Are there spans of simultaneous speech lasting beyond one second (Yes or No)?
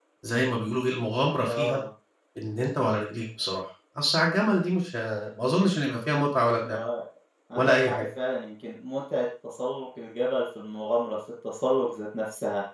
No